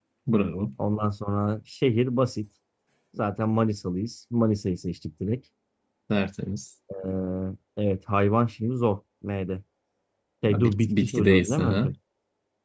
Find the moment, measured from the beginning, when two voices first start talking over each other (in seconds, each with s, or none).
10.5 s